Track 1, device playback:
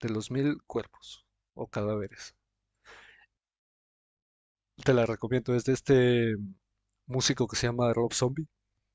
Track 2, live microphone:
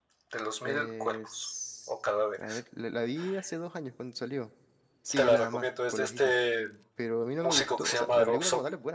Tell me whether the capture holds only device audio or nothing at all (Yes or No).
No